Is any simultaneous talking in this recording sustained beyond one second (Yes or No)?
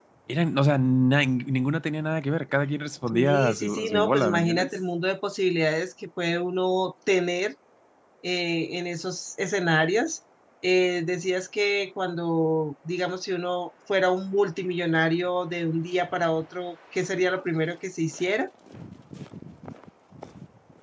Yes